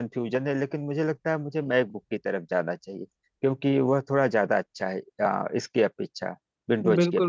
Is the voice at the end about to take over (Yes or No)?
Yes